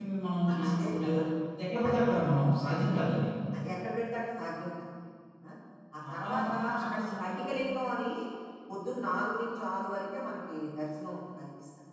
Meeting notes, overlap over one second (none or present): present